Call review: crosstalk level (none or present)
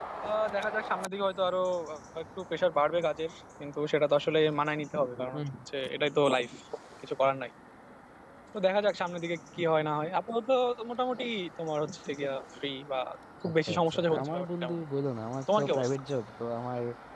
present